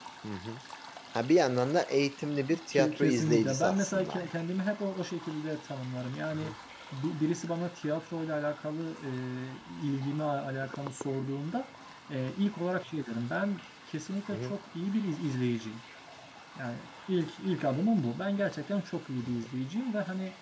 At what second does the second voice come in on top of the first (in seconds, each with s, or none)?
2.5 s